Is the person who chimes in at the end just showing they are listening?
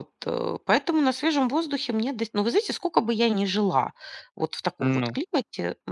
Yes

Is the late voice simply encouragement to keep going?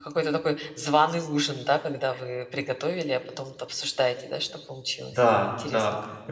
No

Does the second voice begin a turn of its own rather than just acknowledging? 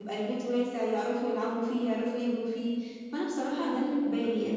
No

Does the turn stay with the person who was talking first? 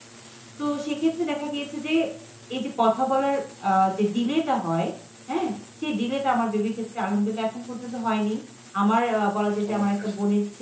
Yes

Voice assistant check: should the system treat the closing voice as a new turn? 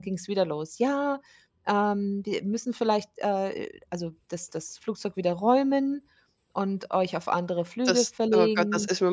Yes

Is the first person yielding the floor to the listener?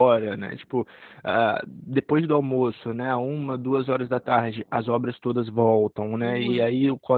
No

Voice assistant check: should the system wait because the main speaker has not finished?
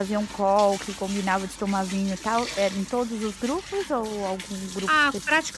No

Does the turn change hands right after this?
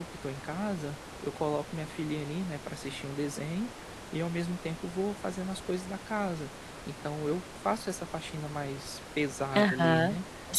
Yes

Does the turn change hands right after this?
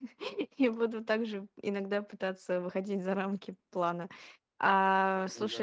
No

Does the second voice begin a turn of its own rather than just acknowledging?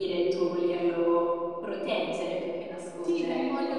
Yes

